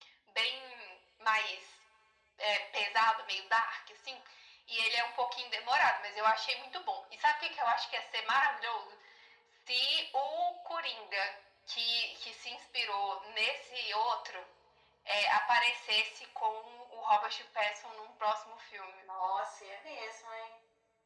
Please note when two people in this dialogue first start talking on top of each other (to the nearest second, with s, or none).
none